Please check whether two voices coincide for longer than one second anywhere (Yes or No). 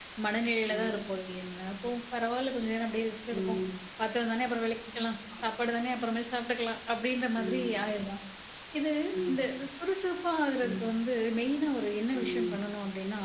No